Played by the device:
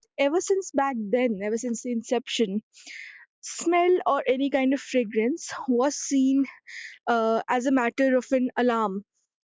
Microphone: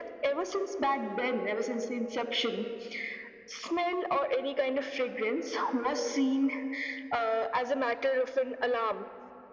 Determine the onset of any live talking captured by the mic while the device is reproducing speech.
none

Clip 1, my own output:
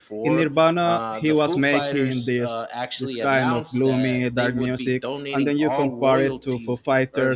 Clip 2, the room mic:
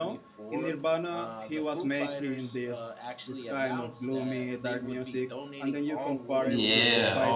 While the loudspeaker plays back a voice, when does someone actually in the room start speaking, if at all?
6.4 s

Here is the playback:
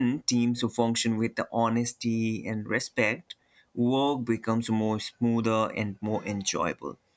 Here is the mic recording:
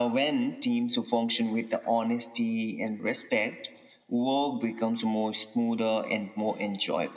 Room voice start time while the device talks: none

